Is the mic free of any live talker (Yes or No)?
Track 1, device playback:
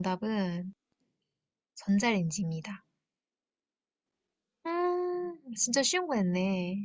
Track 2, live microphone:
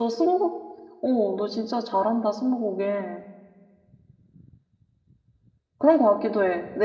No